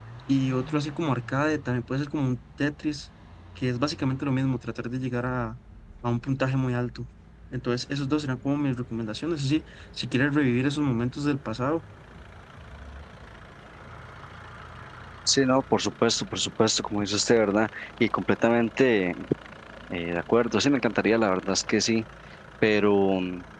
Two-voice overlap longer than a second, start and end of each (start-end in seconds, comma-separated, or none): none